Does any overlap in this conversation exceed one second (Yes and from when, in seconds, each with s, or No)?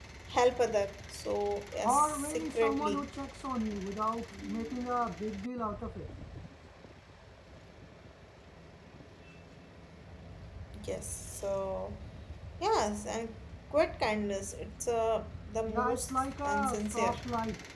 Yes, from 1.8 s